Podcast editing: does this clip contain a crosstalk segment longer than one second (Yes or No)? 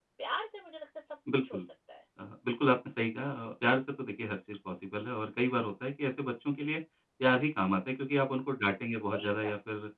No